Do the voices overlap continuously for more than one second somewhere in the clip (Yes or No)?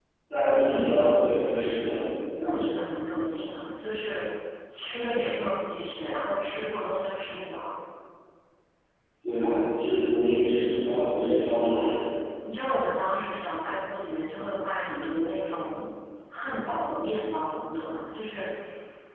No